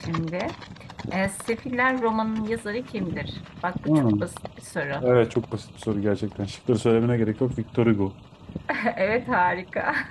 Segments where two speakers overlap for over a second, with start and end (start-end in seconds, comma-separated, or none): none